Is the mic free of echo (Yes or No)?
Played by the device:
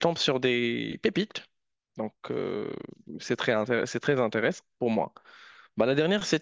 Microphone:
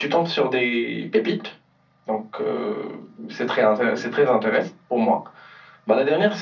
No